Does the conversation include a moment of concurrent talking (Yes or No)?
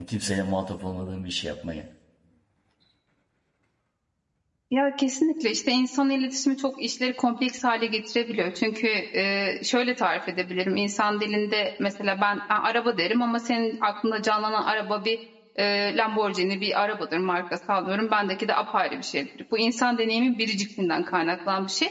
No